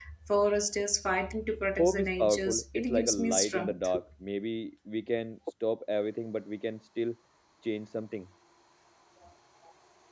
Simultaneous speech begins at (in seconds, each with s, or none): 1.8 s